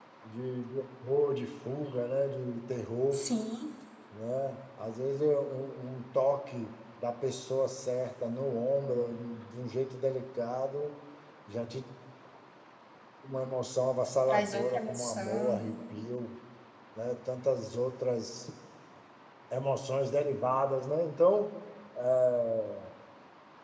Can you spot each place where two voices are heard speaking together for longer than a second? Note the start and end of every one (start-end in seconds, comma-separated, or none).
14.3-15.6